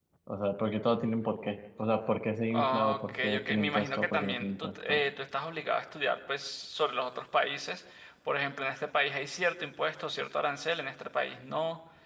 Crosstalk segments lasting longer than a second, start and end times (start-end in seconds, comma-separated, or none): 2.5-5.0